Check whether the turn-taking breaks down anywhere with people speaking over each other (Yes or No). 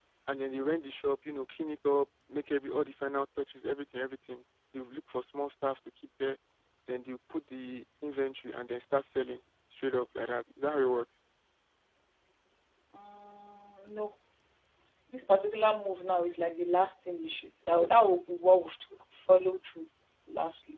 No